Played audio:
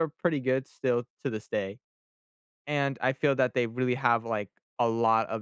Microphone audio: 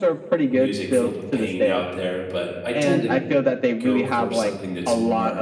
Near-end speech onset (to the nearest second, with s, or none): 1 s